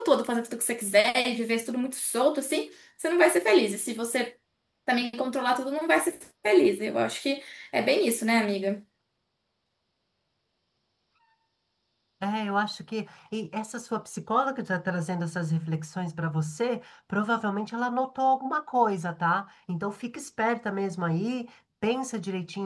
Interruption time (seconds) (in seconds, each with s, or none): none